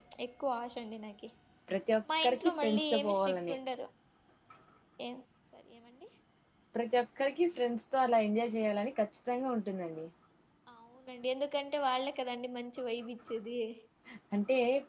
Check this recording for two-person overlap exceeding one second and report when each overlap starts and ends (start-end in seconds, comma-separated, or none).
2.2-3.6